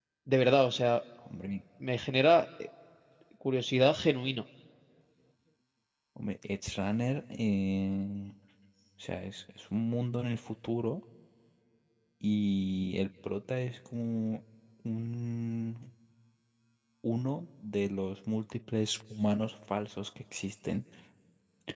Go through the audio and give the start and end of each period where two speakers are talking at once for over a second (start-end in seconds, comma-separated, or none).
none